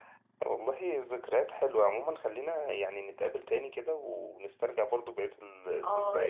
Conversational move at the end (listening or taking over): taking over